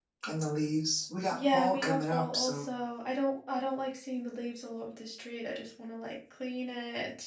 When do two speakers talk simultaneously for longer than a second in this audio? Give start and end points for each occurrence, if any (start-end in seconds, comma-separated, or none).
1.3-2.6